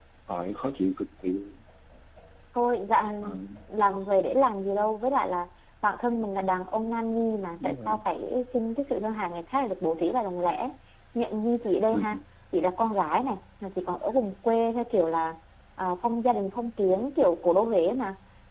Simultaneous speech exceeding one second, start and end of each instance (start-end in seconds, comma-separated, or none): none